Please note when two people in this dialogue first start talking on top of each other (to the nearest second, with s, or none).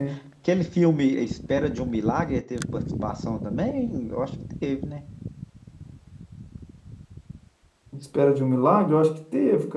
none